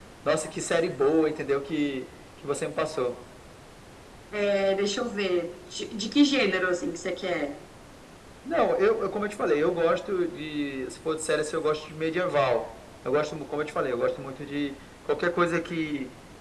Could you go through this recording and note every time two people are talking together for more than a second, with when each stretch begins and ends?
none

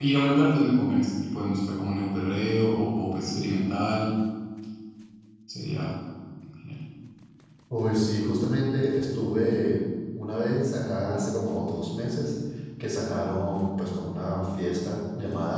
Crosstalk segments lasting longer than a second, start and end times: none

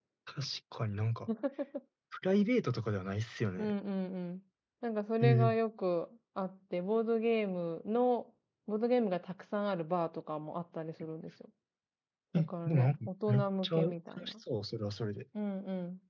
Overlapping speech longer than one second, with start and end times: 12.4-14.3

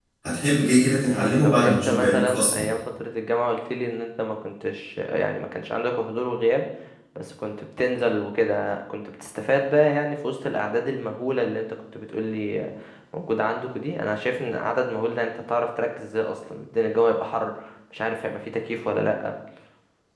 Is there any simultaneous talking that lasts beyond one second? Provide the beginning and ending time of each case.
1.0-2.6

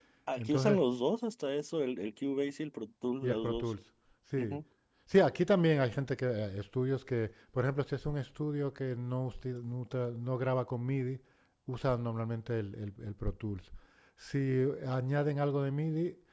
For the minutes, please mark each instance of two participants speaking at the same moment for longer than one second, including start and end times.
none

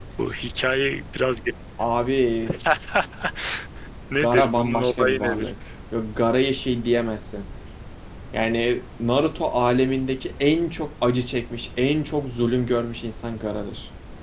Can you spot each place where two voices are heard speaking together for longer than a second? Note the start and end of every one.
4.2-5.5

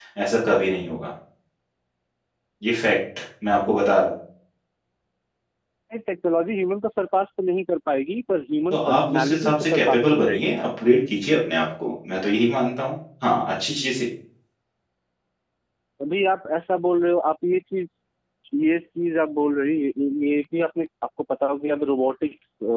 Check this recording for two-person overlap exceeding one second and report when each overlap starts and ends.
8.7-10.5

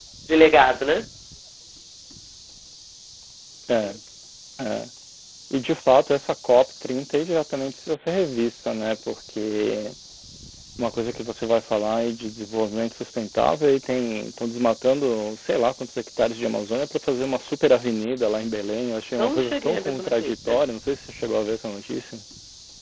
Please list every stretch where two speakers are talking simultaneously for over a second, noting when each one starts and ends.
19.2-20.6

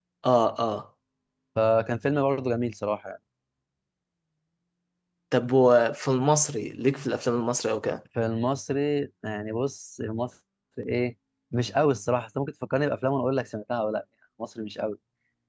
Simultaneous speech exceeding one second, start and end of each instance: none

